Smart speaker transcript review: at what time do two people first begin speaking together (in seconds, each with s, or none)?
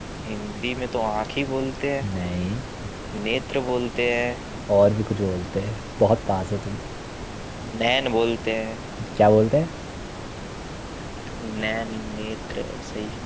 none